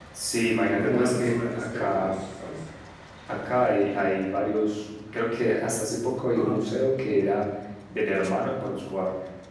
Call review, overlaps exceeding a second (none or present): present